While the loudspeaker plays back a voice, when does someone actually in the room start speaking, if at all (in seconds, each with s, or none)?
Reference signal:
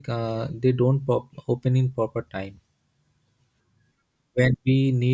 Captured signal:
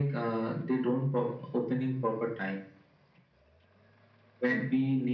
none